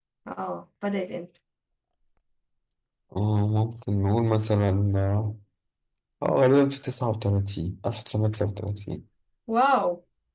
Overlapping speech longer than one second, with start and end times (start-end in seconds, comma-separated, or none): none